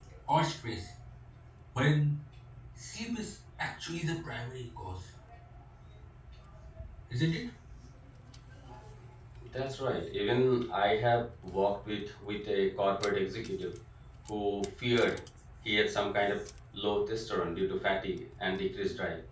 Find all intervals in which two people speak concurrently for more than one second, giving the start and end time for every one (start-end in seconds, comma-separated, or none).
none